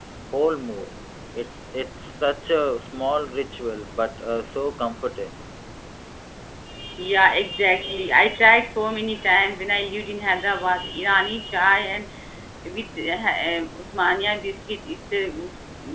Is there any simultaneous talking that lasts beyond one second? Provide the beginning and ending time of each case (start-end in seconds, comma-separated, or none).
none